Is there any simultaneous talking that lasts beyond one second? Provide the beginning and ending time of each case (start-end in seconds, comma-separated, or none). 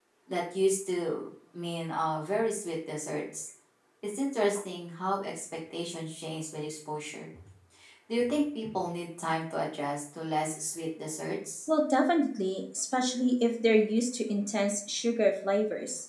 none